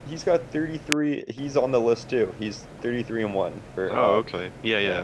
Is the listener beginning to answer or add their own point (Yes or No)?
Yes